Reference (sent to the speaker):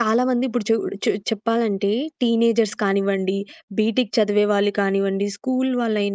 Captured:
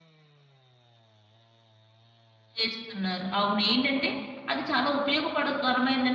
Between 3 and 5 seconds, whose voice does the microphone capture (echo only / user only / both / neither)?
user only